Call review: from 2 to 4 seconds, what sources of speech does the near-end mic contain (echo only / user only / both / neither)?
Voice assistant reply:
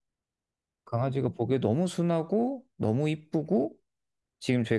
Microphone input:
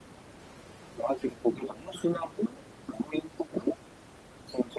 echo only